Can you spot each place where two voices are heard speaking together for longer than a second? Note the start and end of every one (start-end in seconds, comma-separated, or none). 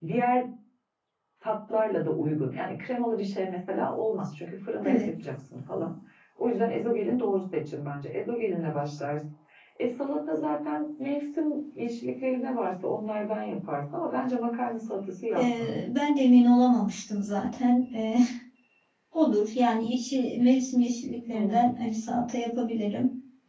none